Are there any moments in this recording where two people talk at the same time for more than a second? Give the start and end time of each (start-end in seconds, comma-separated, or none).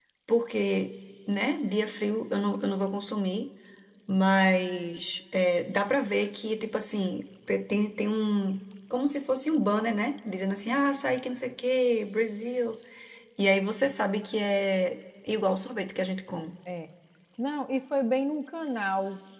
none